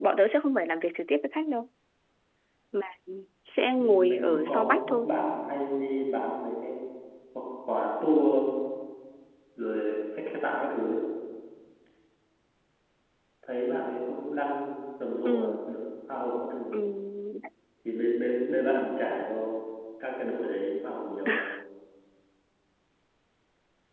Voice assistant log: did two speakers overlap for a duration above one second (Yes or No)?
Yes